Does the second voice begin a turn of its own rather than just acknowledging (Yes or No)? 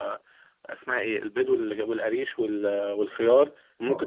No